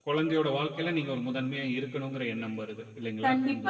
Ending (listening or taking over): taking over